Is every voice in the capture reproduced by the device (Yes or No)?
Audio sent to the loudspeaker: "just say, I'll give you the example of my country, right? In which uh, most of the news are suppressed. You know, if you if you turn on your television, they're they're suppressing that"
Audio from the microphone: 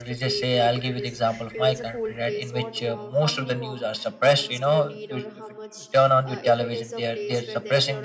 No